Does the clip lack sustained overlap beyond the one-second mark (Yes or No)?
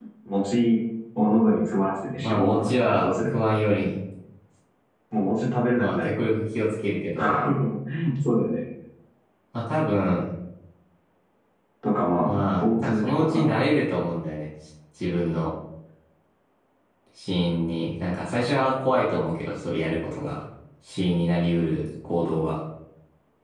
No